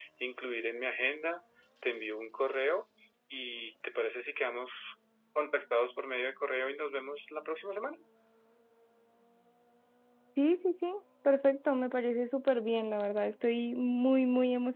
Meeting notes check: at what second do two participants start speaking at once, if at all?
none

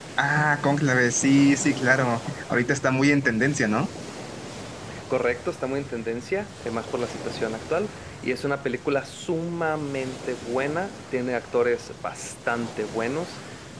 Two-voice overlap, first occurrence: none

